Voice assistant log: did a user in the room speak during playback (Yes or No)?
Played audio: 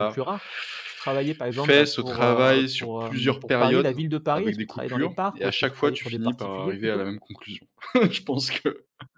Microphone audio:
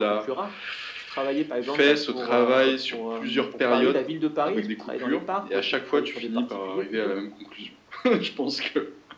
No